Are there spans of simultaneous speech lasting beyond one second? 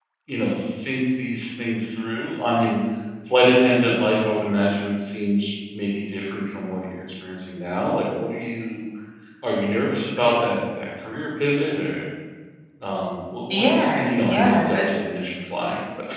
Yes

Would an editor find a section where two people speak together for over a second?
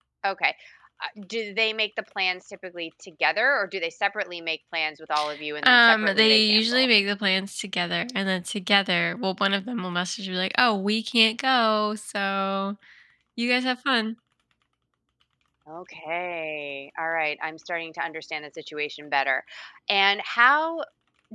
Yes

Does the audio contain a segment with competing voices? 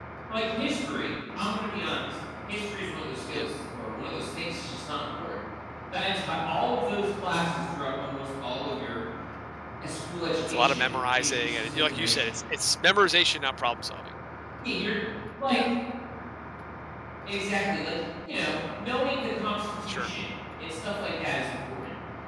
Yes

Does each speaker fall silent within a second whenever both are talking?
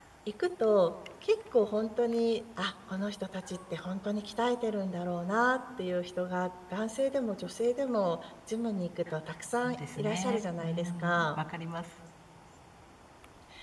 No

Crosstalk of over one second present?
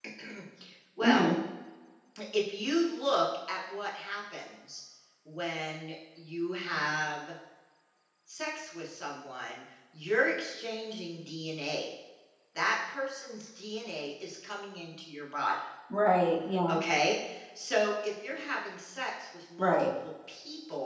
No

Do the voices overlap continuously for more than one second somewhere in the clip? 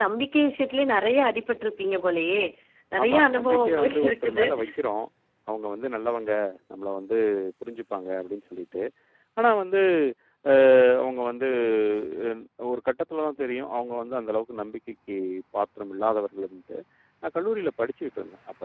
Yes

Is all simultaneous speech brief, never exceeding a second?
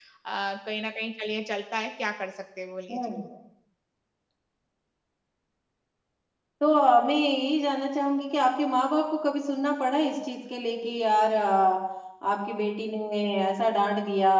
Yes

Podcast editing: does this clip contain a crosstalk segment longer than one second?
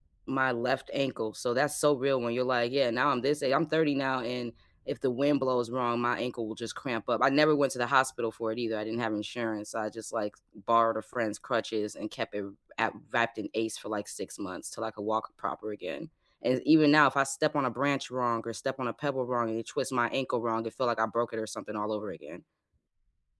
No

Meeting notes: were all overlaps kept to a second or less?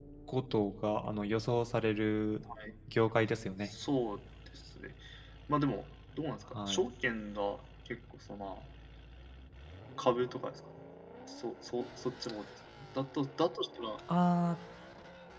Yes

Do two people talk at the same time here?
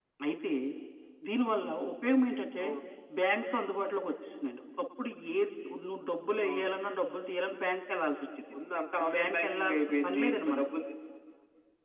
Yes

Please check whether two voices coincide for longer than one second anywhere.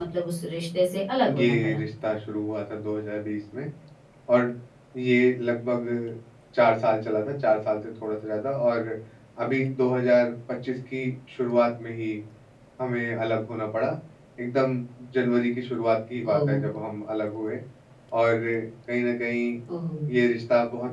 No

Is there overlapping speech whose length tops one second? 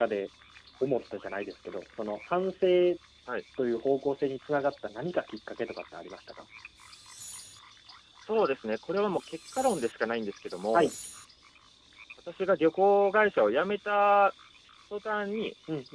No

